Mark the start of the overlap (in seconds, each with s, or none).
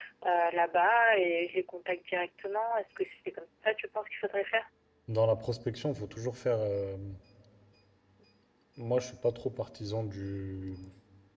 none